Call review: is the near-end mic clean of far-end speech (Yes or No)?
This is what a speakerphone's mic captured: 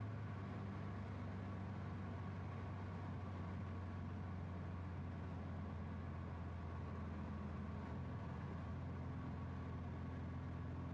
Yes